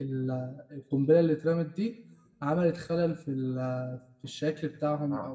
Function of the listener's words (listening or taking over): taking over